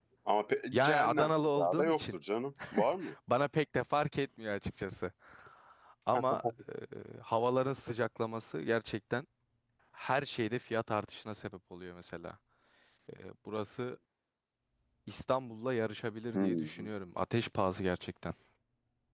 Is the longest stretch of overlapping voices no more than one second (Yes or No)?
No